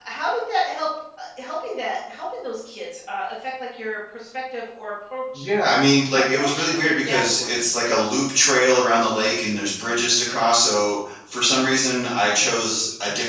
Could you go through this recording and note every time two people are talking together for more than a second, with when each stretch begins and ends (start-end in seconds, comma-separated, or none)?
6.3-7.7